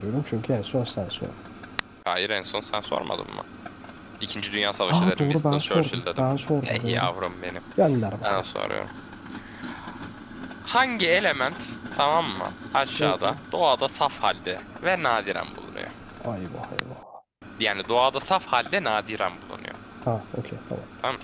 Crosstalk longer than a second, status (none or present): present